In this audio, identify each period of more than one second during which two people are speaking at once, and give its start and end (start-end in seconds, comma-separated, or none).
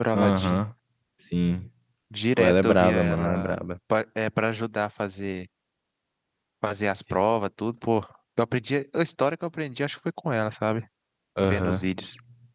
2.4-3.6